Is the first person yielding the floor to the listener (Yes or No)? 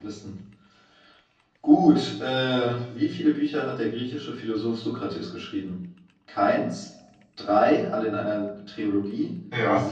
No